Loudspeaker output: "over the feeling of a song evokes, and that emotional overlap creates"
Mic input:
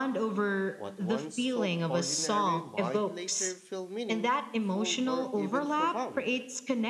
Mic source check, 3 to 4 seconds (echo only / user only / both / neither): both